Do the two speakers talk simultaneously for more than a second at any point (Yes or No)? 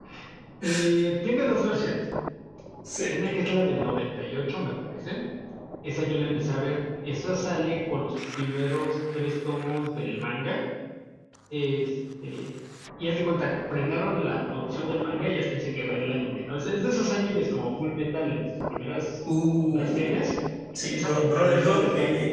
Yes